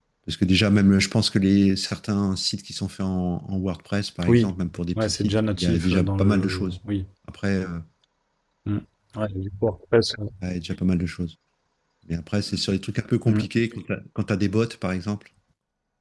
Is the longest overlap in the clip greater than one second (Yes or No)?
Yes